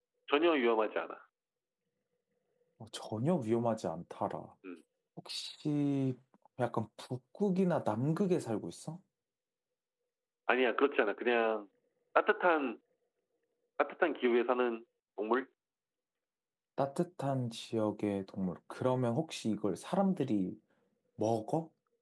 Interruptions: none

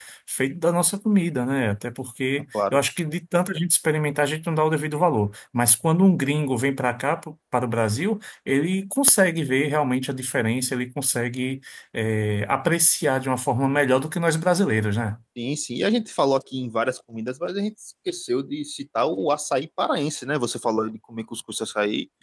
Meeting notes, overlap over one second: none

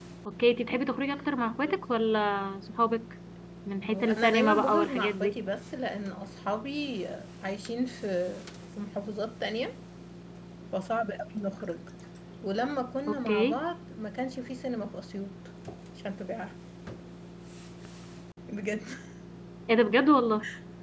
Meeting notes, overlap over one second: present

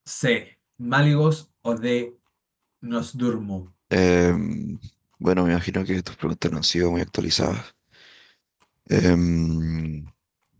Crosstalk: none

